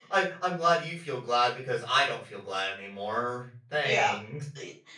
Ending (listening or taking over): taking over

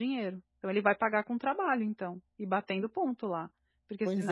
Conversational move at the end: taking over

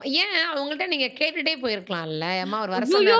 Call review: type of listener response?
taking over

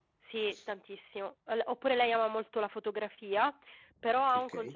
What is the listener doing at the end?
listening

